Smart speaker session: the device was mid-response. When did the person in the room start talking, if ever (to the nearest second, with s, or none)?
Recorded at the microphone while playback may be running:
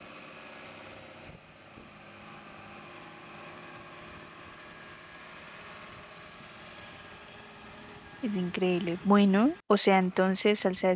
8 s